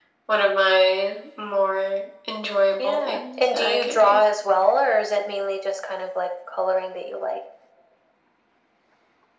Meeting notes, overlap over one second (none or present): present